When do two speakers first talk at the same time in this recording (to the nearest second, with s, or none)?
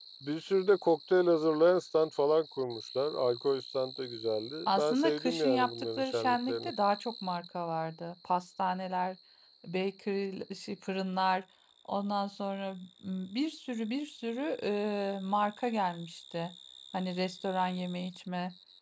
5 s